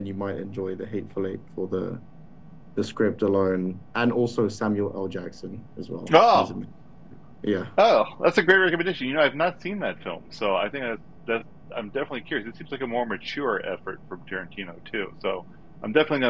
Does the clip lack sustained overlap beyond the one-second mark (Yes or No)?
Yes